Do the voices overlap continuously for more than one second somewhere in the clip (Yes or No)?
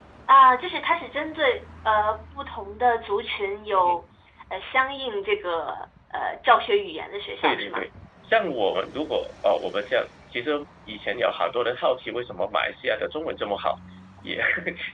No